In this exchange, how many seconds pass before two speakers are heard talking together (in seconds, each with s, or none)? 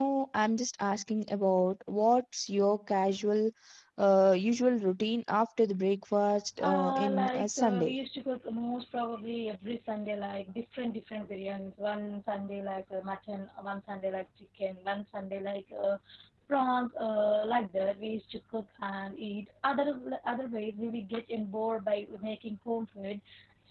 6.6 s